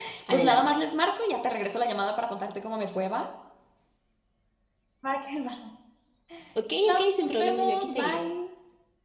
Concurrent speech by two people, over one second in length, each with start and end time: 6.8-8.2

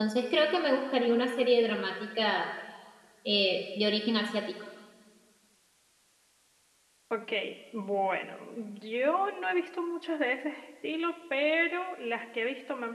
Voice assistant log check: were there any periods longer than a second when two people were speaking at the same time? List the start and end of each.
none

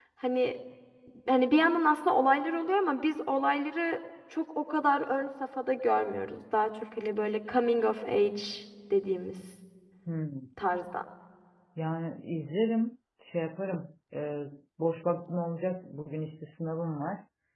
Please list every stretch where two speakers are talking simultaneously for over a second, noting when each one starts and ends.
none

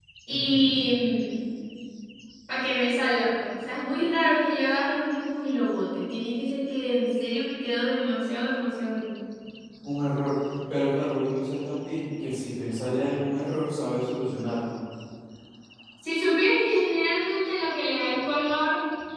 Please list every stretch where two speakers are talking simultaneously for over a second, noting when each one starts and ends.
none

